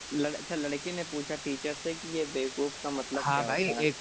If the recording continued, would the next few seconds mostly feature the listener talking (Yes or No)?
Yes